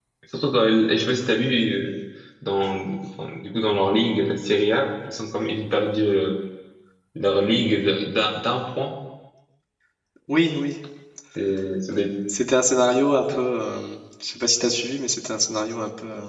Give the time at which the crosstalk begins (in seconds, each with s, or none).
none